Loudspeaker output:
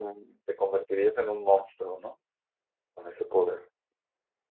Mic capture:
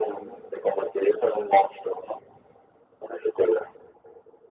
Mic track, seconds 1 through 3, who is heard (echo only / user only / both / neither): echo only